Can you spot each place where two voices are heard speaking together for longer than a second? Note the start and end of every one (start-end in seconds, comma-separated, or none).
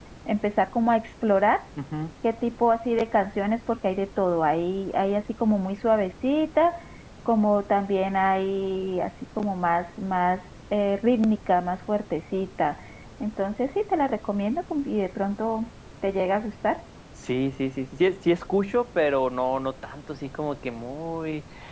none